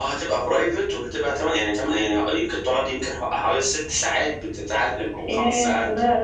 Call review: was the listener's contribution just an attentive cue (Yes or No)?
No